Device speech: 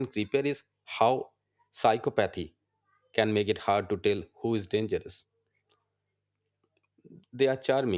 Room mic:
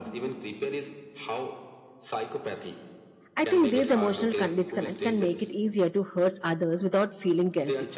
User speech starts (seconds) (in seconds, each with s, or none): 3.4 s